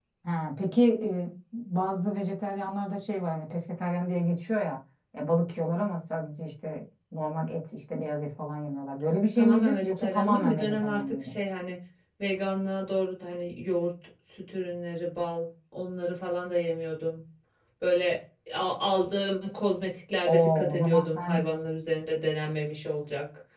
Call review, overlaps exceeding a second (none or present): present